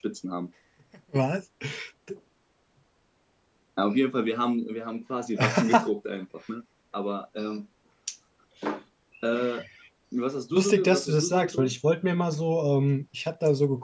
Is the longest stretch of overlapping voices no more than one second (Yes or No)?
No